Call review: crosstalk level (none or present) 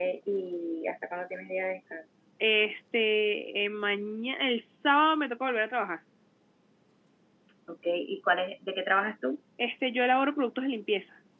none